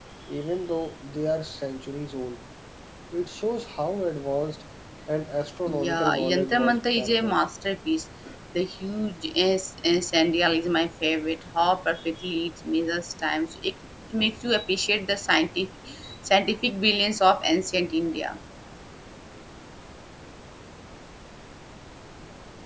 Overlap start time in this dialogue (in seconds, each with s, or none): 5.7 s